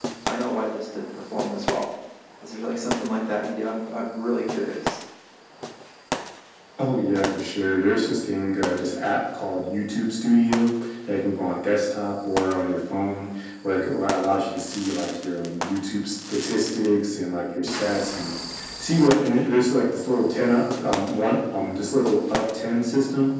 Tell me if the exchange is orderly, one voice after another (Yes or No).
Yes